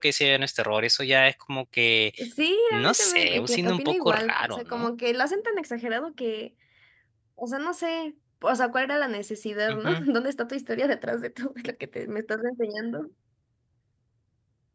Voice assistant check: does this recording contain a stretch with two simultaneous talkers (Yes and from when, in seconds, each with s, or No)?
Yes, from 2.7 s